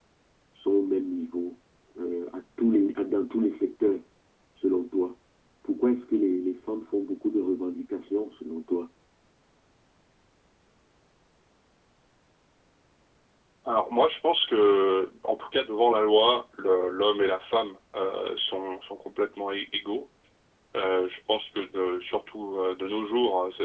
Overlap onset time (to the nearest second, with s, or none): none